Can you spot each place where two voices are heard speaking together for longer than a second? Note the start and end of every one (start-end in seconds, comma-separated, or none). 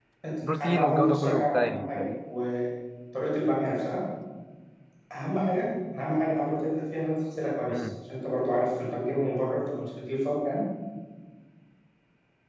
0.6-2.0